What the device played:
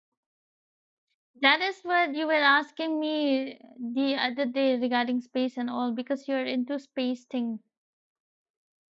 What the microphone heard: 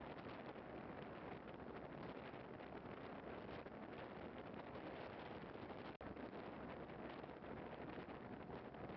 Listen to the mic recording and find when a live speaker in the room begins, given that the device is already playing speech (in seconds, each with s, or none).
none